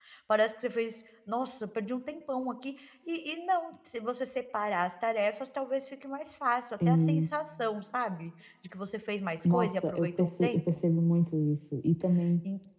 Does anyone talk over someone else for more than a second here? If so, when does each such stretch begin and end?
9.4-10.6

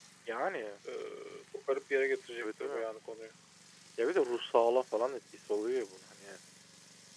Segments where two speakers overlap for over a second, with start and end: none

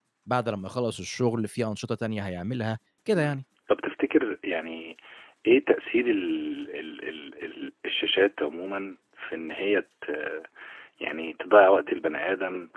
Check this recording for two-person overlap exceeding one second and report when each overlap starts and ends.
none

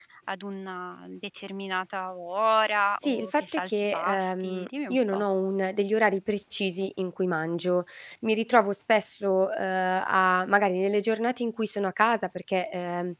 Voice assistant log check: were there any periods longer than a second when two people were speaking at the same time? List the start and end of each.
3.0-5.2

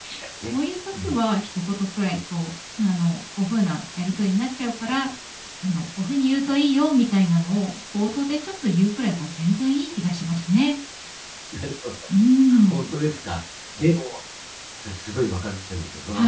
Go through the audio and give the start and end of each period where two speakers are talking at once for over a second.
none

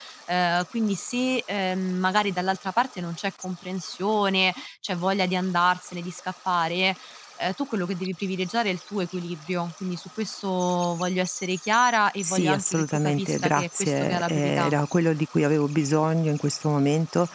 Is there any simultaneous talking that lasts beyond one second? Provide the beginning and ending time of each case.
12.2-14.8

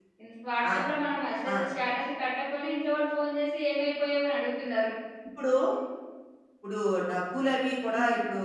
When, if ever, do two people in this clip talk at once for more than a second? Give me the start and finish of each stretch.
none

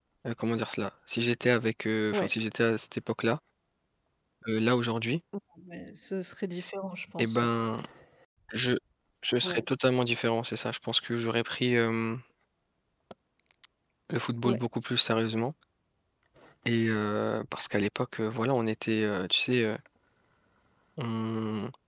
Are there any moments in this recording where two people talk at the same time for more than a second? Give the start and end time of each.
none

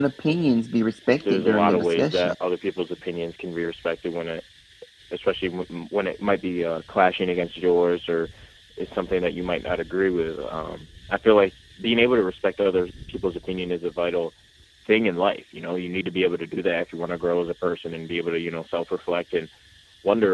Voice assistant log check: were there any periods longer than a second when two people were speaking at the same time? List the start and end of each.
1.1-2.3

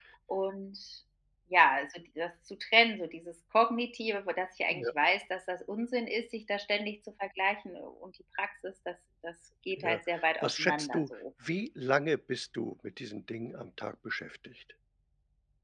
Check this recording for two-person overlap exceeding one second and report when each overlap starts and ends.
9.8-11.1

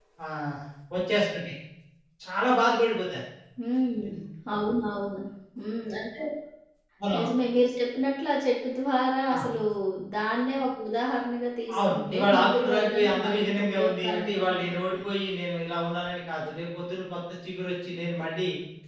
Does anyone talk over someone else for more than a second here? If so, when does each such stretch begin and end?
11.8-15.0

